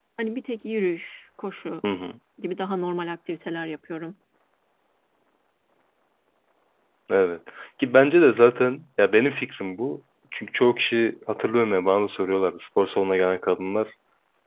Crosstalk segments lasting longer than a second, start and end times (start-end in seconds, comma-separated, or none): none